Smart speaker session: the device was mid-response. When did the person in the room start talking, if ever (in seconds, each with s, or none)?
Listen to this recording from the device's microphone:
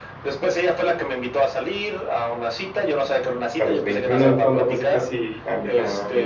3.6 s